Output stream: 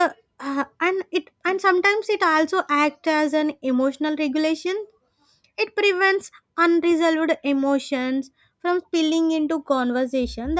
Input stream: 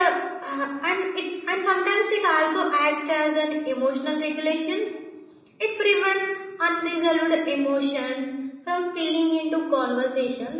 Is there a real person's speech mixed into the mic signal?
No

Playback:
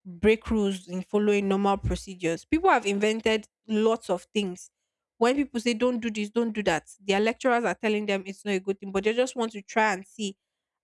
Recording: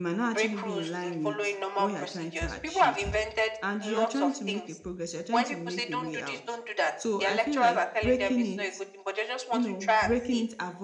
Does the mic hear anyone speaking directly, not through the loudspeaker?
Yes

